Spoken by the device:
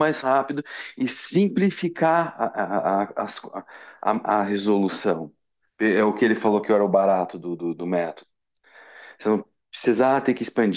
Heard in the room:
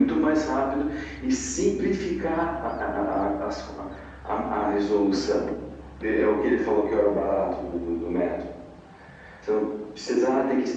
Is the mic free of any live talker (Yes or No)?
Yes